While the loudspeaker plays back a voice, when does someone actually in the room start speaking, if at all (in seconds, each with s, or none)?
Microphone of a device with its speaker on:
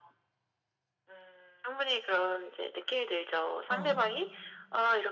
3.7 s